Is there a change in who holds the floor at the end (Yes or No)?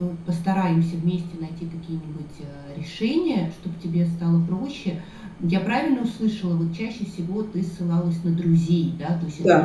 No